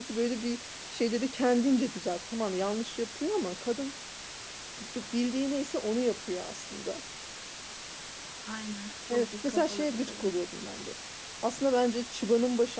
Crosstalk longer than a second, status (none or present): present